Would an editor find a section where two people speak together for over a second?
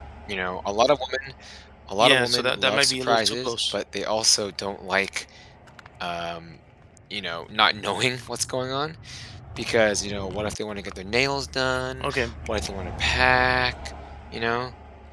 Yes, from 2.0 s

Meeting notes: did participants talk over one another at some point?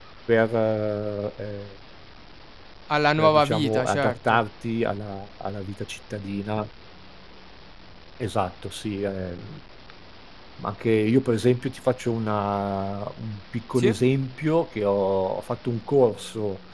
Yes, from 3.2 s

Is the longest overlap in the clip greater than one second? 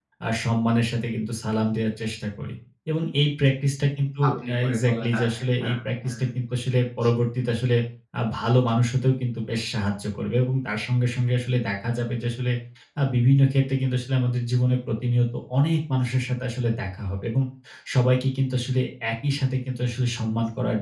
Yes, from 4.2 s

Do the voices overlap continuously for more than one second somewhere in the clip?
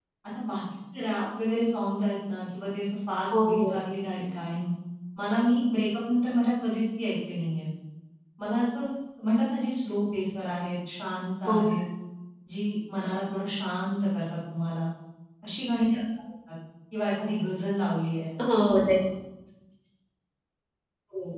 No

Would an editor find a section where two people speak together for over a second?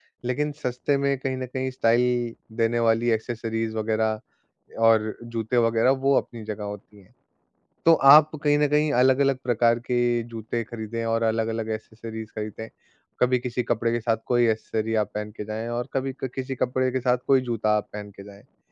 No

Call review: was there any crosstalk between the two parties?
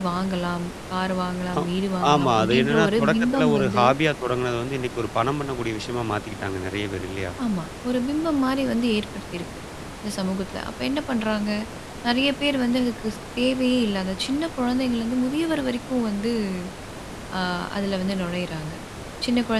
Yes, from 2.1 s

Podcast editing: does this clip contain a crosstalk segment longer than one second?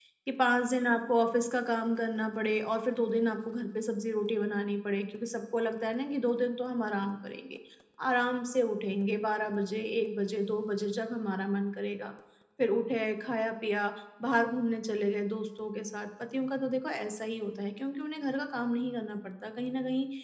No

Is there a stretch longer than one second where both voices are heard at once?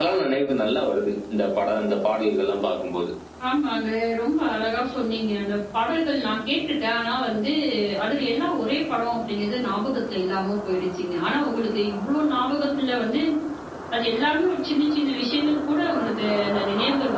No

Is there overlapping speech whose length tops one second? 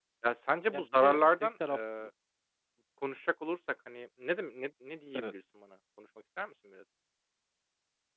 Yes, from 0.7 s

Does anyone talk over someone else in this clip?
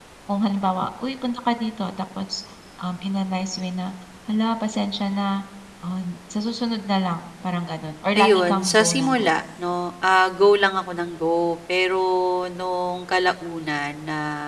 Yes, from 8.2 s

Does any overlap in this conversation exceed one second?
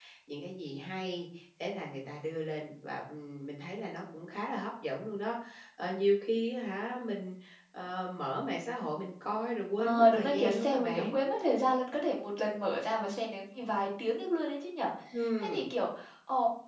Yes, from 9.8 s

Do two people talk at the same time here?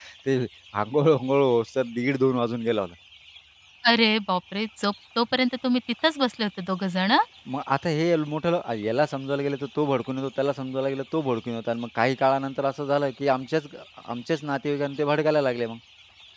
No

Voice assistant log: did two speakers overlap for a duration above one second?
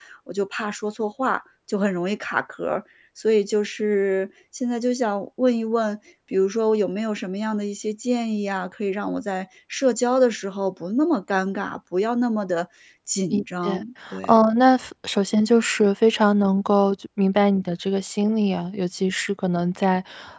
No

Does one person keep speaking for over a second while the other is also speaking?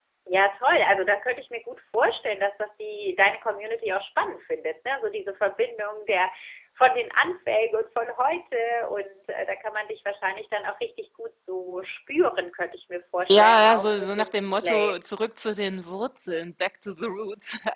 Yes, from 13.3 s

